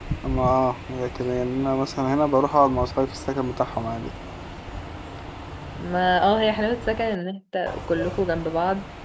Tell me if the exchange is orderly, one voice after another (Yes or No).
Yes